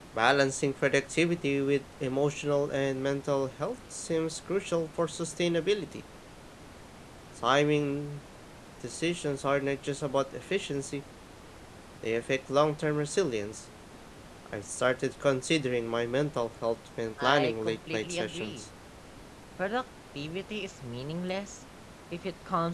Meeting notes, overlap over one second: present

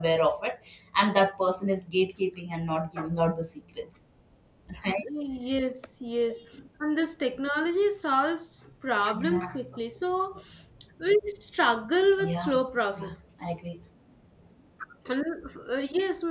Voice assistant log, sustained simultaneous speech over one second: none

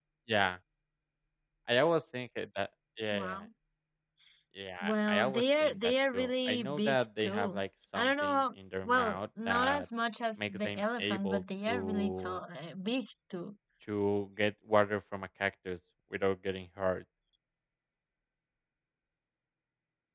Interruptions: present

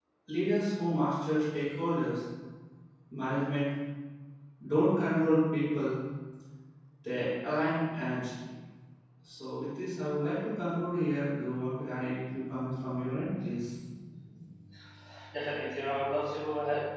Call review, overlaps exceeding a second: none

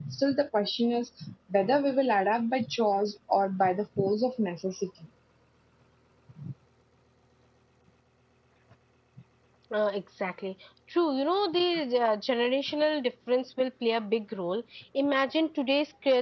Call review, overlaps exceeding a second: none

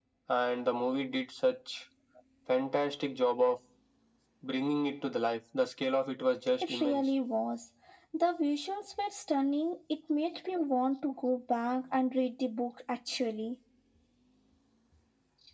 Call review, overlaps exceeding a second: none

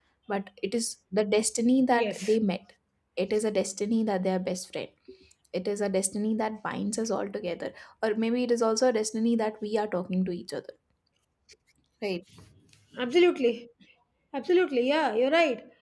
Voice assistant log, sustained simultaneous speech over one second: none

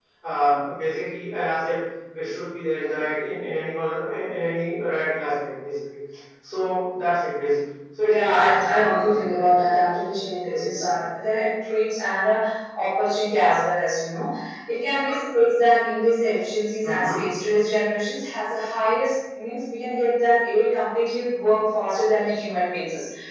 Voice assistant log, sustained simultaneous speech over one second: present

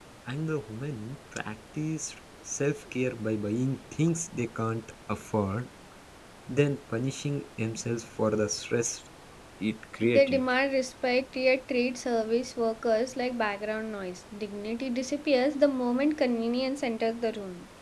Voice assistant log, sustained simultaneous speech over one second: none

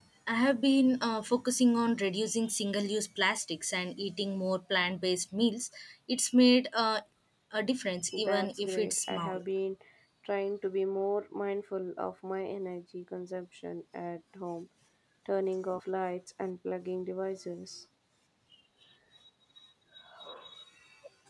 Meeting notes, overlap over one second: present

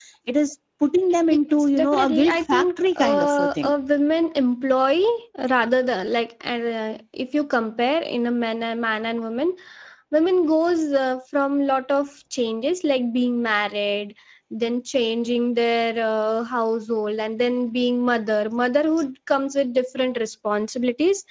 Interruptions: present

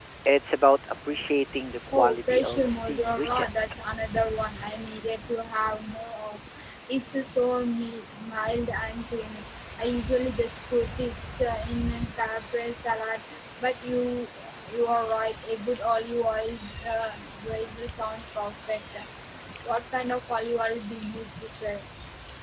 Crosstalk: present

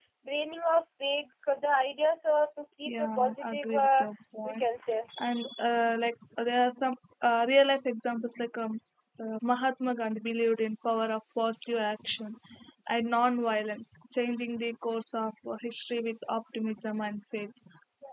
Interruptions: present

